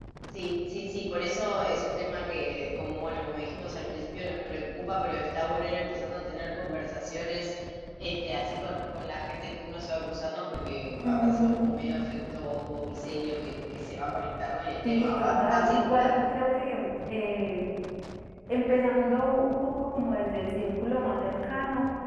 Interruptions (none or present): present